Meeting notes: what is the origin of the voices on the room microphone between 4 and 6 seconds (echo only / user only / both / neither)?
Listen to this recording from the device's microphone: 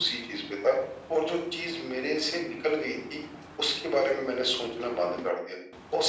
echo only